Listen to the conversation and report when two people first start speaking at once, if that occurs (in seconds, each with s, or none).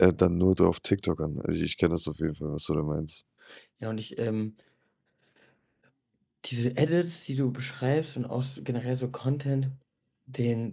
none